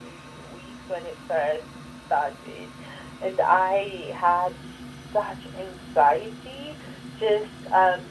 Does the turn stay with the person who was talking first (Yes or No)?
Yes